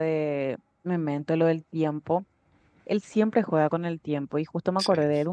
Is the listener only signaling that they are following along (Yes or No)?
Yes